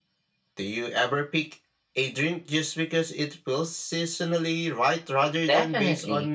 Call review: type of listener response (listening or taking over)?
taking over